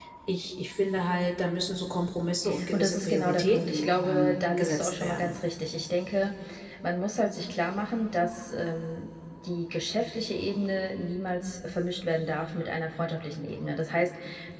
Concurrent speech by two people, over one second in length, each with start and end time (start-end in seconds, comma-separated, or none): 2.7-5.4